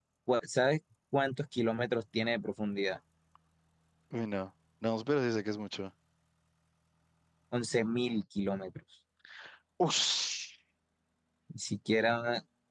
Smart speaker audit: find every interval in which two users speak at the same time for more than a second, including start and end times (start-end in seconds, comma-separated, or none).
none